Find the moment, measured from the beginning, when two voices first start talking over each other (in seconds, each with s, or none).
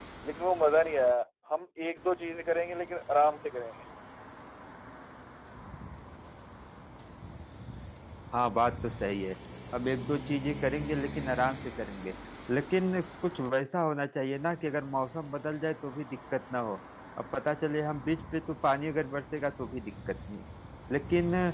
none